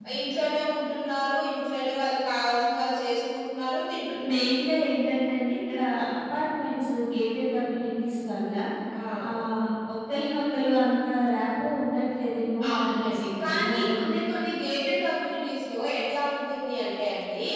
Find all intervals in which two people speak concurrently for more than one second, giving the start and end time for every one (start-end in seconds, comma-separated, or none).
12.7-14.1